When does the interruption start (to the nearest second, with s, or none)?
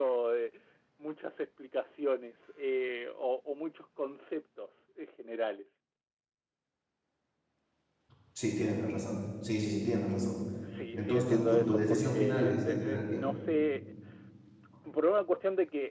11 s